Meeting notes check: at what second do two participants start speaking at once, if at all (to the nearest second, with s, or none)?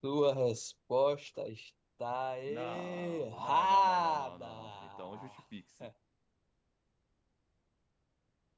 2 s